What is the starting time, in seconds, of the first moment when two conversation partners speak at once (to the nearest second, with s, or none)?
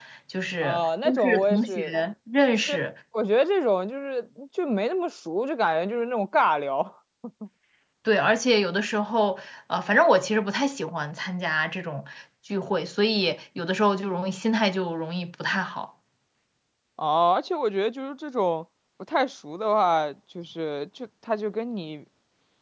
1 s